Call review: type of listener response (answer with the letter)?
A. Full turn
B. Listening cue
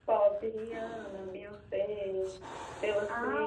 B